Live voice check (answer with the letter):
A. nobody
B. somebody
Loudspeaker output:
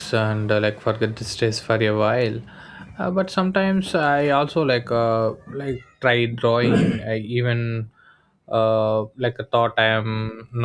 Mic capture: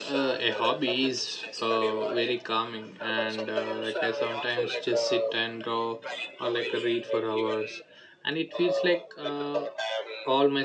B